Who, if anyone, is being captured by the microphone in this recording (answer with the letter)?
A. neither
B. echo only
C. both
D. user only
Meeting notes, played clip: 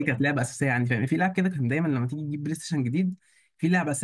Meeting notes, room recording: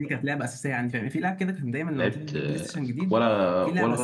C